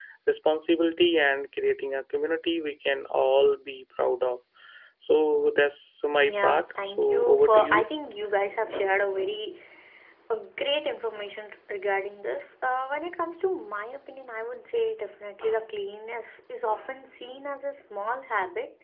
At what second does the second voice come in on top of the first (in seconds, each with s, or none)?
6.2 s